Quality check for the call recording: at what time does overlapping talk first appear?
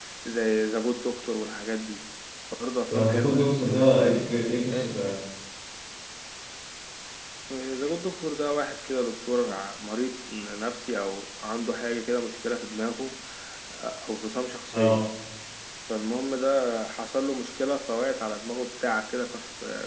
2.9 s

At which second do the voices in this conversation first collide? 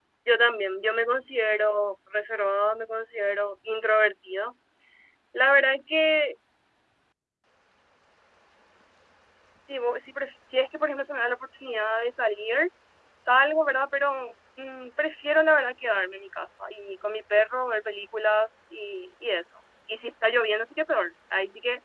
none

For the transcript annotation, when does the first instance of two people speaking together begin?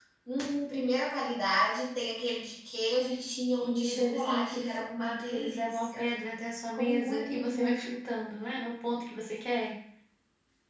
3.6 s

